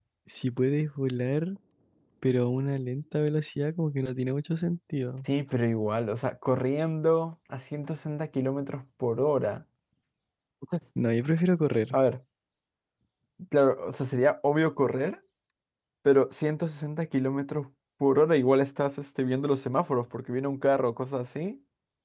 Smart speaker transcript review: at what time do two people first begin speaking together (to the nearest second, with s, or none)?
none